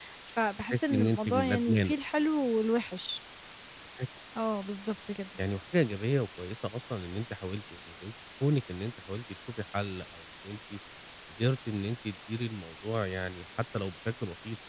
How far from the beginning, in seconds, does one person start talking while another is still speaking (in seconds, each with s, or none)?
0.7 s